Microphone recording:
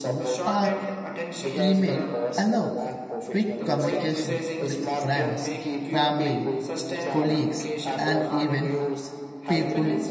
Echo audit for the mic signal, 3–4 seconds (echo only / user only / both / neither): both